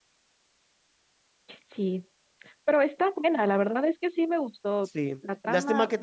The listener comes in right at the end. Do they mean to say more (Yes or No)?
Yes